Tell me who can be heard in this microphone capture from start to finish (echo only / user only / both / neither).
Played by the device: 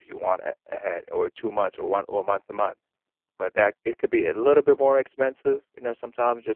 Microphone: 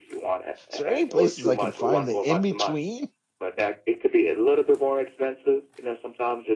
both